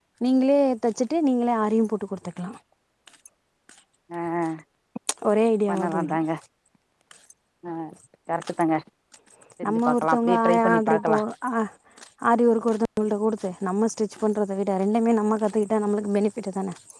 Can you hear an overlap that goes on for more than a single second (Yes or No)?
Yes